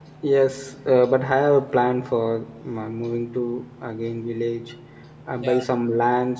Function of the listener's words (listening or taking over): listening